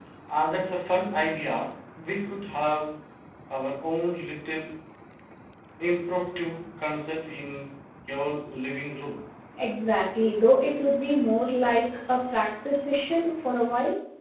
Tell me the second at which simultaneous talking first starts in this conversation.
none

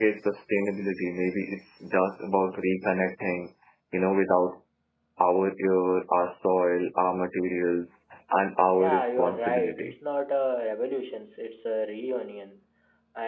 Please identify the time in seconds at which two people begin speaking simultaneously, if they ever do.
8.7 s

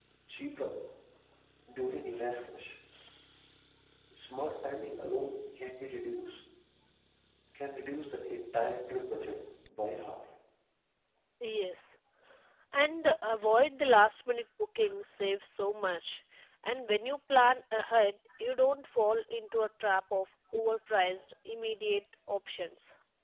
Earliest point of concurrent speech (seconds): none

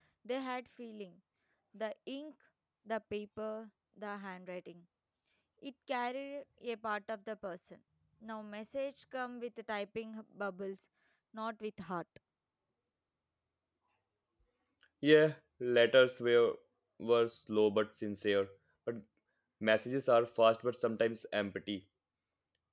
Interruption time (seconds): none

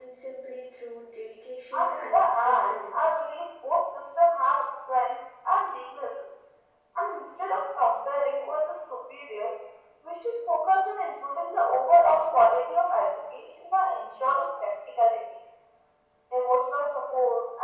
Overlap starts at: 1.7 s

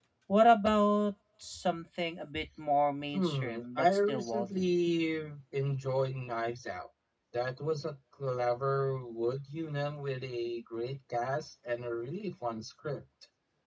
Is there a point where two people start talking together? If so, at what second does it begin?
3.1 s

